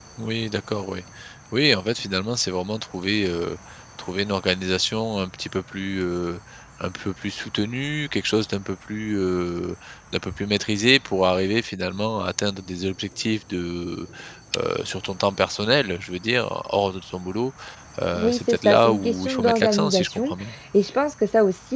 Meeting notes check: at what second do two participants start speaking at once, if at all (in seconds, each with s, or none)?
18.1 s